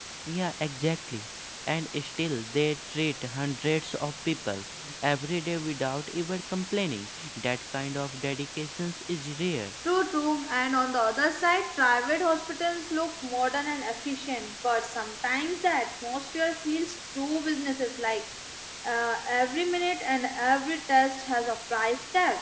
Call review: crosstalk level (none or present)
none